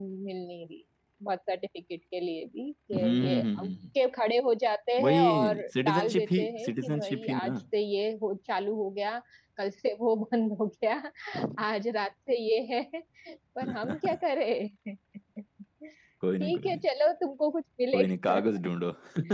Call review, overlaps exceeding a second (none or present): present